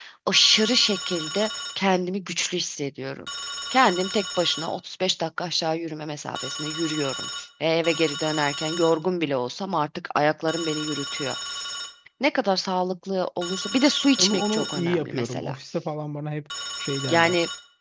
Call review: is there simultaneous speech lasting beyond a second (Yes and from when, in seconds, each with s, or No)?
Yes, from 14.2 s